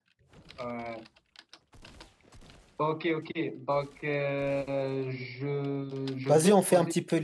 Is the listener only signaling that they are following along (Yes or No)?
No